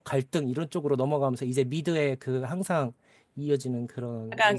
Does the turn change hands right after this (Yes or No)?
Yes